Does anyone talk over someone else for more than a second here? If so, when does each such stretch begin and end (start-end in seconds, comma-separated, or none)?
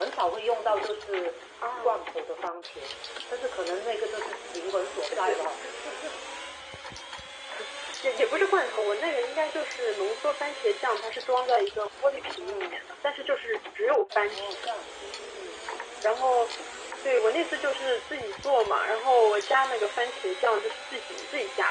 none